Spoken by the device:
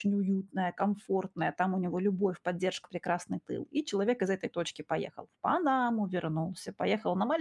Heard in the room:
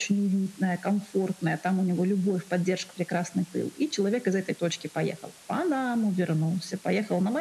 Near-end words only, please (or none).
none